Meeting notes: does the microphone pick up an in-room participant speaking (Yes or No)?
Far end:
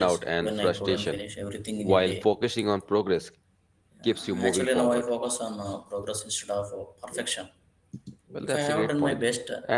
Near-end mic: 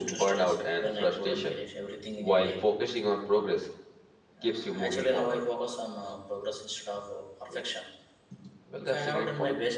No